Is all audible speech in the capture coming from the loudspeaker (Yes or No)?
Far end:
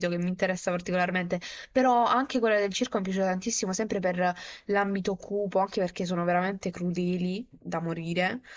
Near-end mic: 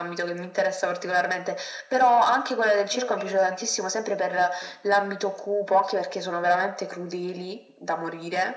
No